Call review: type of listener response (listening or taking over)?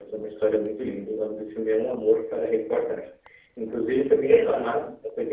listening